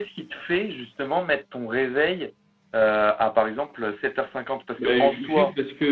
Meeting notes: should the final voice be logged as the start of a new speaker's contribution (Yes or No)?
Yes